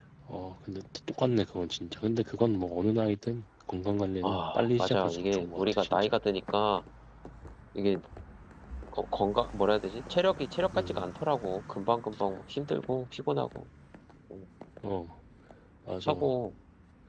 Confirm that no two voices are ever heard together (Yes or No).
No